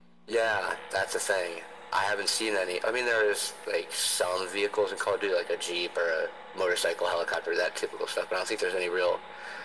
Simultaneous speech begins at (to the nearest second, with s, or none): none